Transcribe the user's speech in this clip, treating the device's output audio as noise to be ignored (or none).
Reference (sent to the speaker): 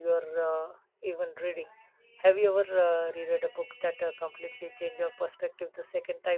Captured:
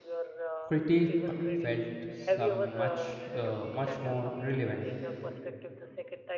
critique uh, felt some much uh, much more relevant